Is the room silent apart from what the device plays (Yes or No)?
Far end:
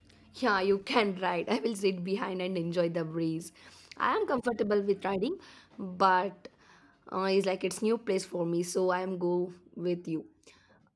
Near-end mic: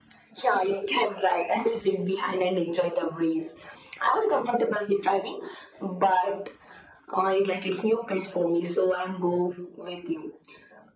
Yes